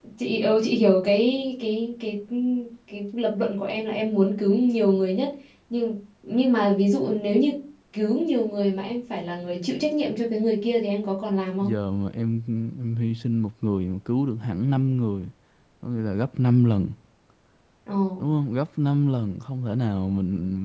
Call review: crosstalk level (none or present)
none